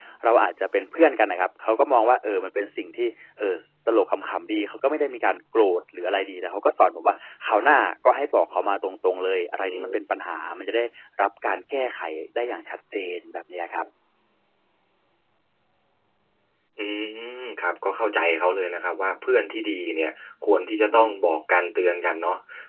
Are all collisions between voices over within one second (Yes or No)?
Yes